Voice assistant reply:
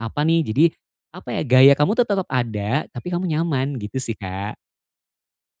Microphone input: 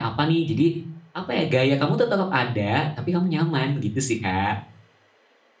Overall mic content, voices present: echo only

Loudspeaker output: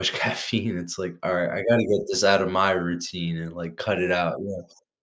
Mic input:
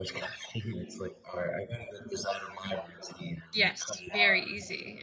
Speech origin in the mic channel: both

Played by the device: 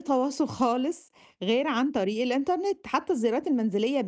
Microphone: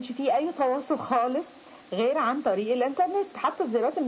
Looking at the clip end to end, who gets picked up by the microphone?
echo only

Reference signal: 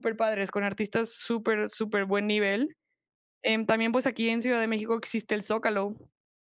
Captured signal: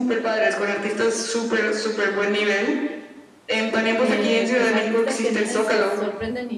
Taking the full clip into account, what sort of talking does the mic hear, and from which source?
both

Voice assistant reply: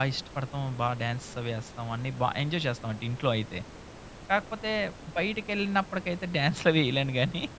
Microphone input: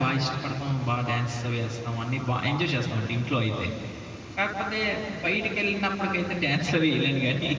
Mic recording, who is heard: echo only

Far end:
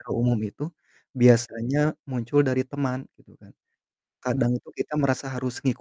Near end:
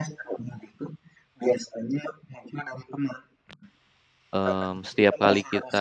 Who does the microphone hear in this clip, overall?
both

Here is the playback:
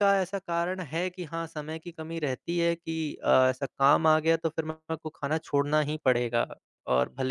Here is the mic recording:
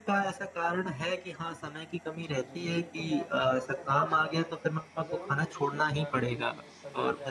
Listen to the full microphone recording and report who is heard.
both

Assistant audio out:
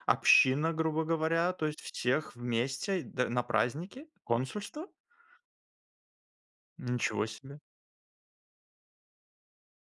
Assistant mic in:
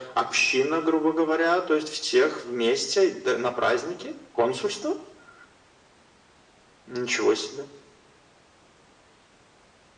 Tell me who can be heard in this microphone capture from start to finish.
echo only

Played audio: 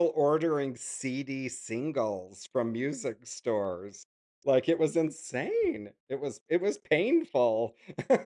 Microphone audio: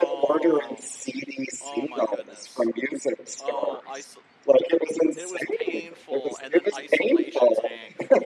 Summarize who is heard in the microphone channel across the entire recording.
both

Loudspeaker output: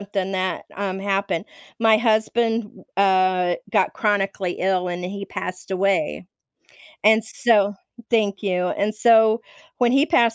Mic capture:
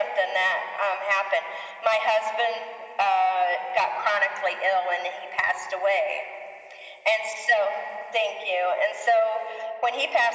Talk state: echo only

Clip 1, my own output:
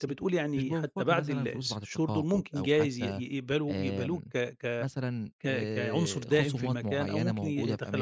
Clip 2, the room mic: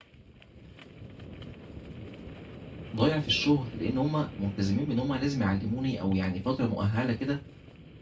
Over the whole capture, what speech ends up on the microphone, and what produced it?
user only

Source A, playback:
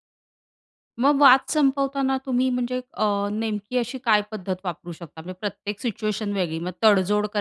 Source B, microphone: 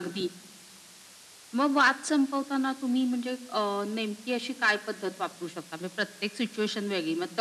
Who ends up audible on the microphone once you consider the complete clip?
echo only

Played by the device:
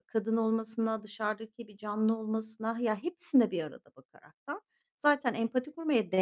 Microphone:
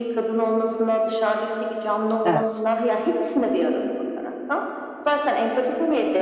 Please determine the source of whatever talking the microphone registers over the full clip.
both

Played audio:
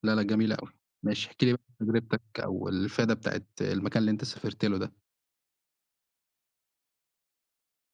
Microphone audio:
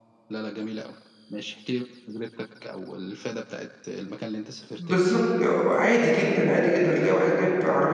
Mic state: both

